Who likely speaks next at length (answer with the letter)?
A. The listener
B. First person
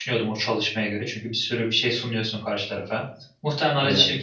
B